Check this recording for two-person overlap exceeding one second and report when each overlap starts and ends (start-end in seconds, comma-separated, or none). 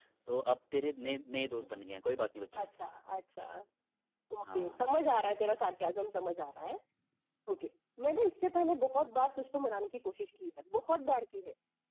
none